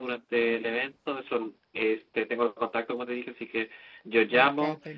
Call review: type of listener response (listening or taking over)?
listening